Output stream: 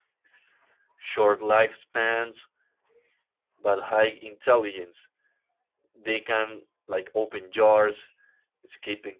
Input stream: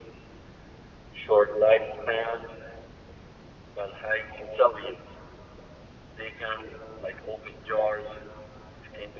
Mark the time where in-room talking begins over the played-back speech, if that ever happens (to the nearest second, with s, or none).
none